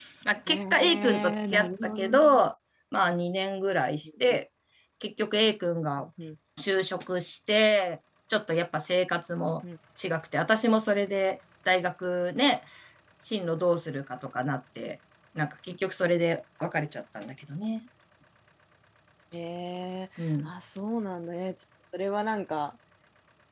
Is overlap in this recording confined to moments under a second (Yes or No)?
No